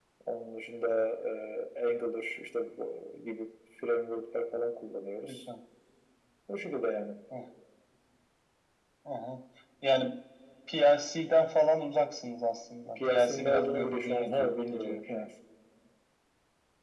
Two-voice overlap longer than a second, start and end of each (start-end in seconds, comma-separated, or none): 12.9-15.0